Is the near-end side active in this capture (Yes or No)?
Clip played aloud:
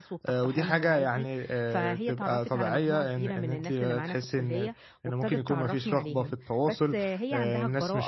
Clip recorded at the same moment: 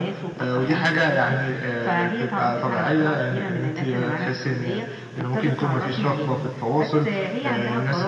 No